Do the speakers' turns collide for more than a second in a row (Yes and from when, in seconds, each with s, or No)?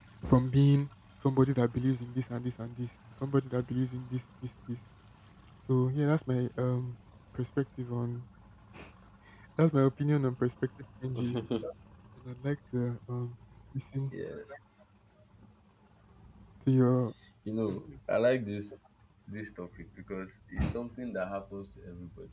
No